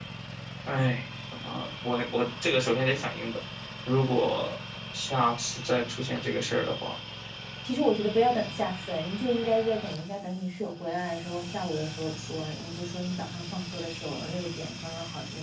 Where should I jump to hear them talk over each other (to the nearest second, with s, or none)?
none